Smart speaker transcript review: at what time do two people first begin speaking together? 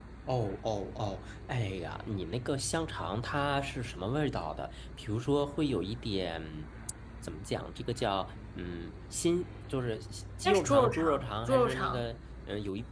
10.4 s

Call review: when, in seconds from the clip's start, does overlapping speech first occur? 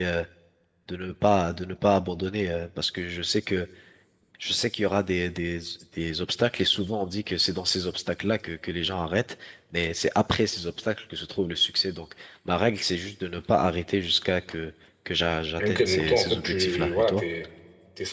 15.6 s

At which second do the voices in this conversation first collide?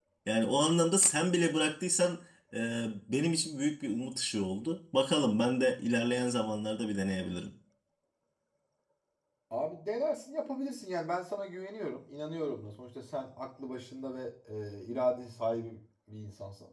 none

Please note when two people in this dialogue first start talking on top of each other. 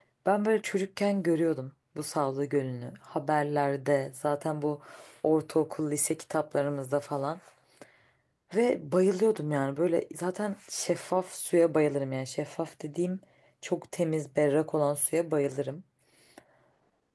none

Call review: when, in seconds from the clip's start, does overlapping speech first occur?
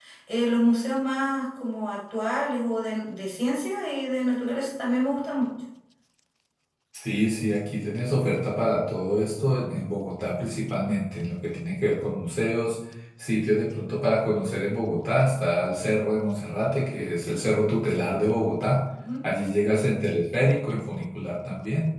none

